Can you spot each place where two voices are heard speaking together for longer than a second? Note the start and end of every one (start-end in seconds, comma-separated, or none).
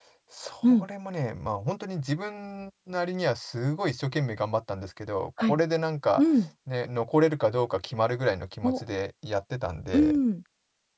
none